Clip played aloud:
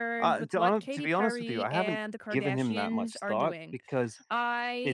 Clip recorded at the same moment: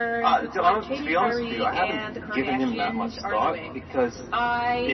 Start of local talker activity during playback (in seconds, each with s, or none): none